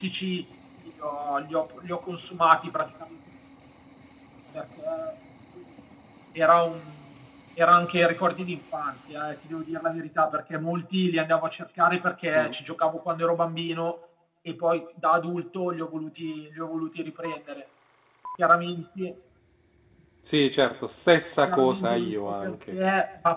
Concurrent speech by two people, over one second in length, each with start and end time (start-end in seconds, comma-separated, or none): 21.5-22.8